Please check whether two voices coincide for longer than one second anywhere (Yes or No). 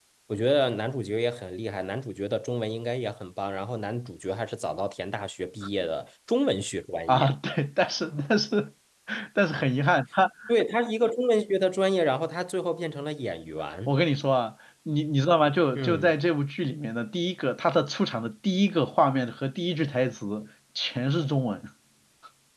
No